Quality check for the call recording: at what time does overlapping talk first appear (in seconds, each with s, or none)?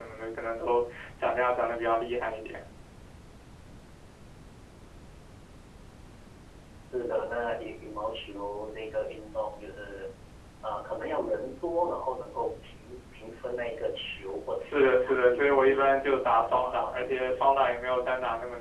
14.6 s